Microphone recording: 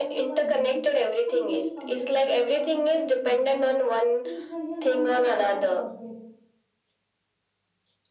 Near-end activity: present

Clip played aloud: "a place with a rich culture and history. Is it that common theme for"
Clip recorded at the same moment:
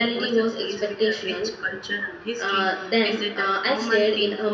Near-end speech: present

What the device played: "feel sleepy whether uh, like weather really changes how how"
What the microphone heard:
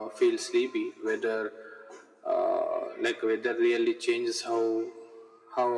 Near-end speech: none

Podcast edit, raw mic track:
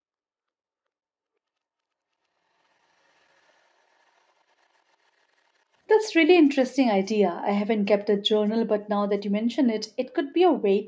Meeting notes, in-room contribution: present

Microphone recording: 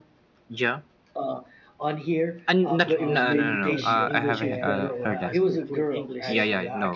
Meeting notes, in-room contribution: present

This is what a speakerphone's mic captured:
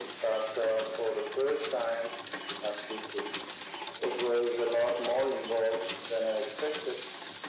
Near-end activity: none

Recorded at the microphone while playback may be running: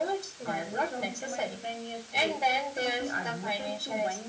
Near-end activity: none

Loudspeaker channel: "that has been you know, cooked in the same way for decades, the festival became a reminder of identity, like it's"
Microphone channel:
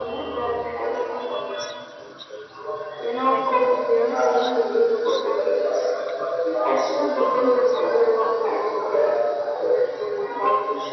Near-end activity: present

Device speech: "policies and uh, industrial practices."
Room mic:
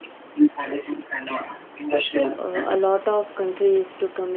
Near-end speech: present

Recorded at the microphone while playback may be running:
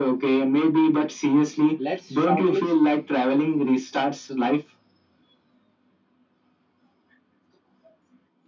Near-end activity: present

